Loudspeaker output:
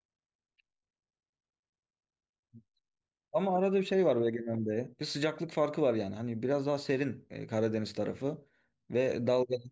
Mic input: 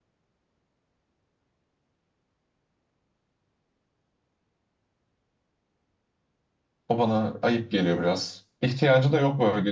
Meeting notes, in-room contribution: present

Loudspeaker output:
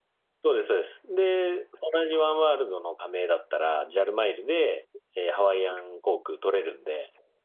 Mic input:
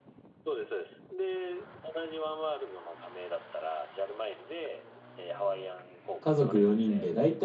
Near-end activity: present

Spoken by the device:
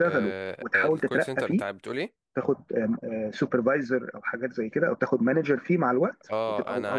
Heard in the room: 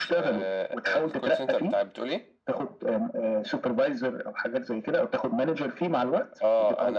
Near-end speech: none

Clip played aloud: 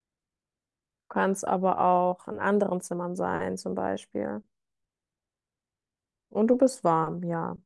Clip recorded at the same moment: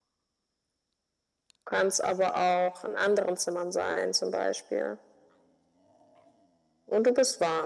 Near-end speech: none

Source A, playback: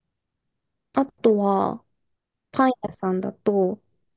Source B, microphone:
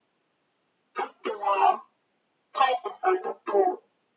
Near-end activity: none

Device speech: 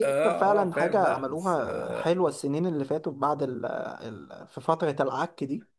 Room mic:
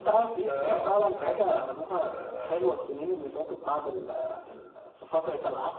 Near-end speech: none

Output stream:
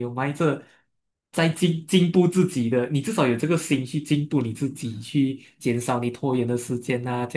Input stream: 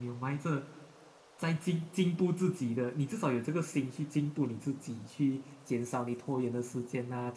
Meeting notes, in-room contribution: none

